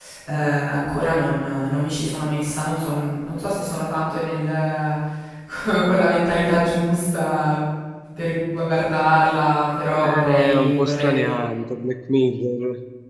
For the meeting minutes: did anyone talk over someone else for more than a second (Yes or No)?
Yes